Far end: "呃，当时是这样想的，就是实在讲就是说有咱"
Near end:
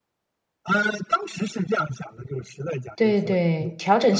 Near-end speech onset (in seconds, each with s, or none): 3.0 s